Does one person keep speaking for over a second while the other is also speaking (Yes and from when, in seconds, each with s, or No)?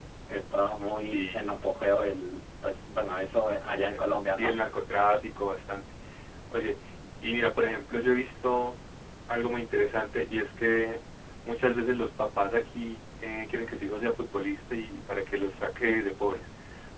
No